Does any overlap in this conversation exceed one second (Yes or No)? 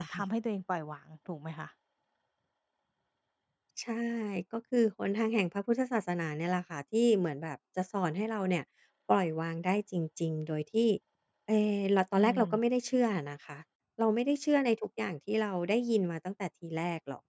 No